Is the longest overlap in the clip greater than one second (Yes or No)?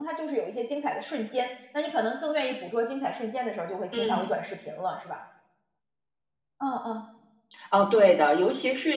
No